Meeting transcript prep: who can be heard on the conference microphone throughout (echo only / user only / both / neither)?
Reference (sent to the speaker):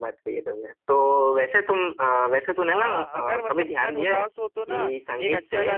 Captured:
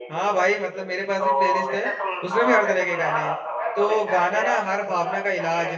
both